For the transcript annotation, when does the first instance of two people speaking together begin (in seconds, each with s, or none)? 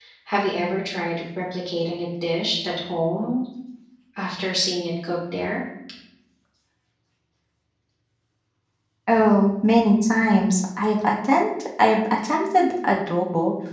none